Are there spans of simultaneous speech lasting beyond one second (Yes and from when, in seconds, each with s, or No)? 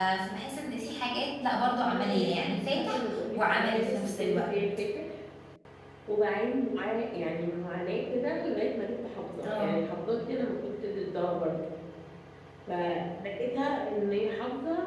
Yes, from 1.9 s